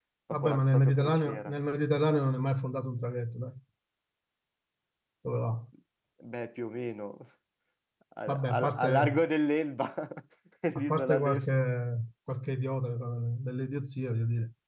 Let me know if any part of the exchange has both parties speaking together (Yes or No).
Yes